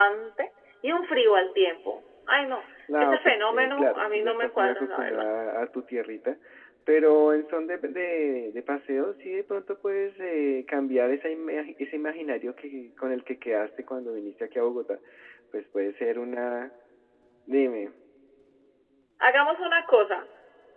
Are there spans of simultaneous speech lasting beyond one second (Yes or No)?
Yes